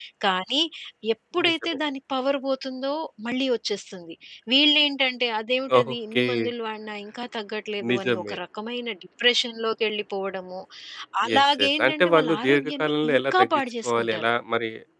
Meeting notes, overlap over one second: present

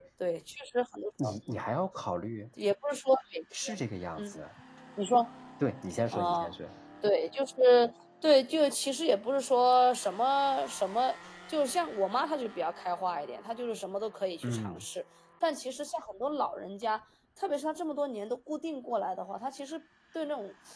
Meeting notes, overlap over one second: none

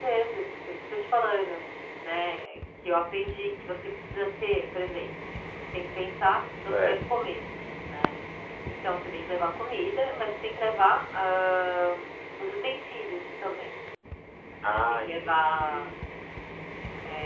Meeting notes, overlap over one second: present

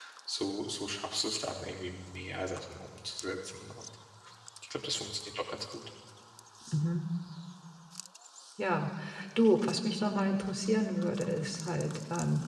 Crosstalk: none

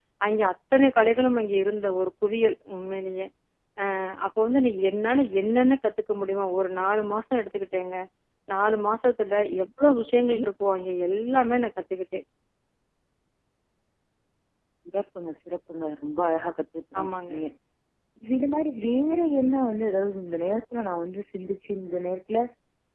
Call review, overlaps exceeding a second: none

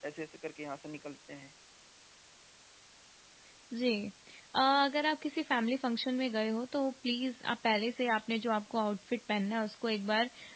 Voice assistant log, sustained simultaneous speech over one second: none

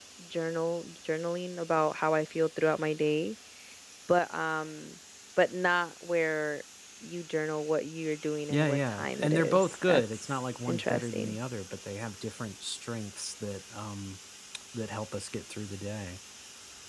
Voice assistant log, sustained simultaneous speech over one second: present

